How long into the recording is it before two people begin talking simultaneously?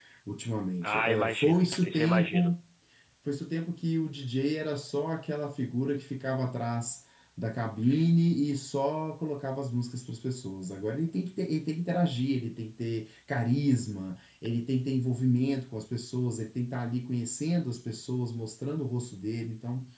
0.8 s

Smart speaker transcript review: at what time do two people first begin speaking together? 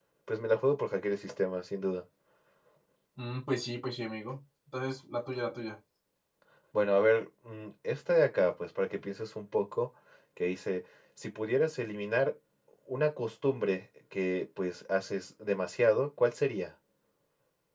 none

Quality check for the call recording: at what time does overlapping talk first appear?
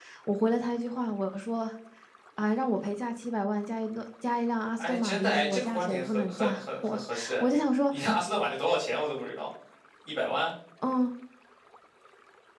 4.8 s

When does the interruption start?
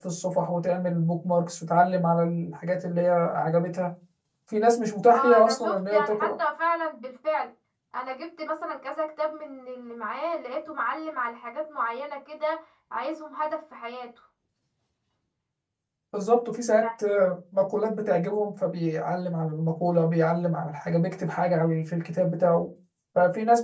5.1 s

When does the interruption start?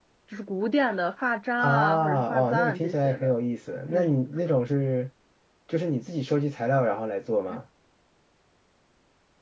1.6 s

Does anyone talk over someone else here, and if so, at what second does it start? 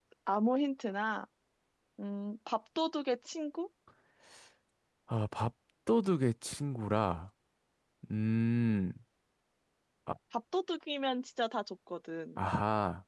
none

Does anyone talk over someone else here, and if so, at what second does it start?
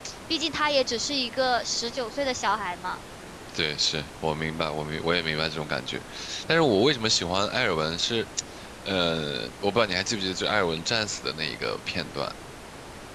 none

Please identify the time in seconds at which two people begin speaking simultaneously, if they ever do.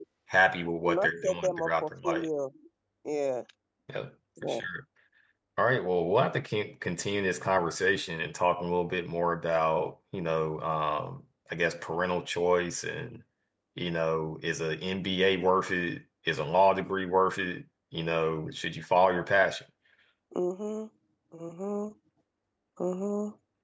0.9 s

